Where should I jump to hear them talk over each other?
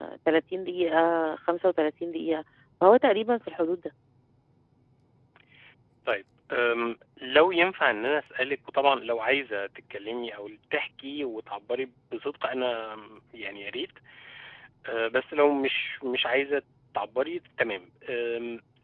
none

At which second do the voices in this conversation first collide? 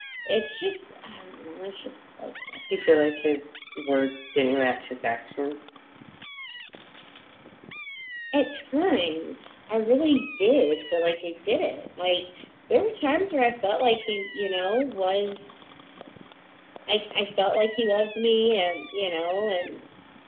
none

